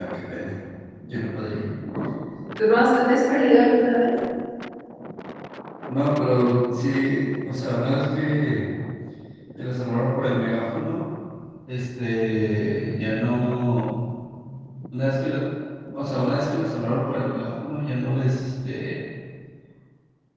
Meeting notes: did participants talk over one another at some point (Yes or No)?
No